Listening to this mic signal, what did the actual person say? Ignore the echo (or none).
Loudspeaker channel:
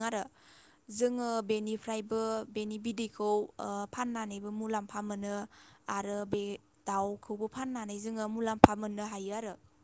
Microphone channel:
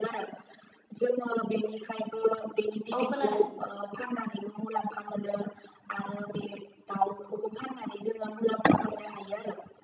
औ खोनादों।